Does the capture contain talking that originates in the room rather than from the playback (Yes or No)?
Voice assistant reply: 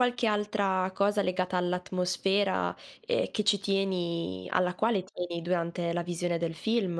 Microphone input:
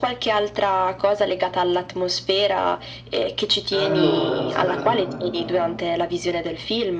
Yes